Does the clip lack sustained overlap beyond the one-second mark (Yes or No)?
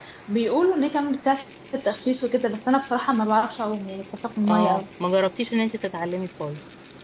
Yes